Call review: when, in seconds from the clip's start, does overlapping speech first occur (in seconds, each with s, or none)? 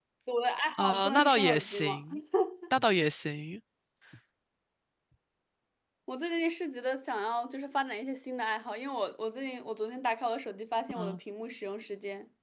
0.8 s